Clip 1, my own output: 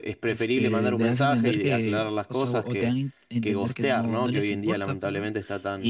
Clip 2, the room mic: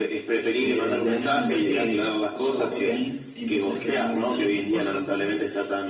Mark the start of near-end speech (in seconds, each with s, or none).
none